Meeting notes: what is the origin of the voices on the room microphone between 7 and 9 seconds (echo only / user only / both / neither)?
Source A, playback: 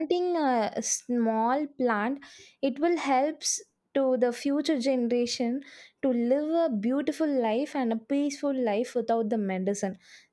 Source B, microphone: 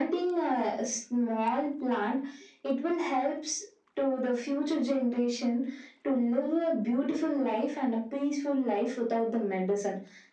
echo only